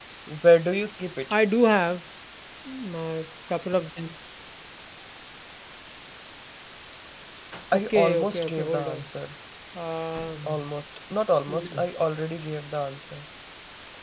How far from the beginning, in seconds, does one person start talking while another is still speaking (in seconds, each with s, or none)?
7.7 s